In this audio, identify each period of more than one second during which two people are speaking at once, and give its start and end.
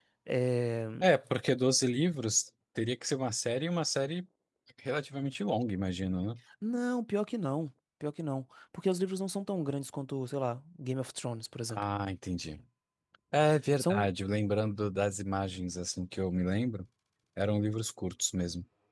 none

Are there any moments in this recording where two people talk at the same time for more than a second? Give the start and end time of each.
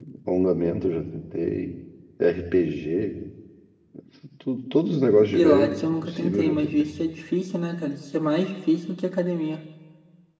5.3-6.9

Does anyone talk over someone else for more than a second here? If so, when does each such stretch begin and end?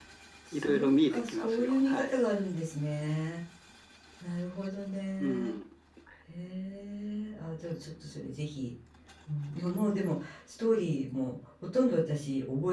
0.5-2.2

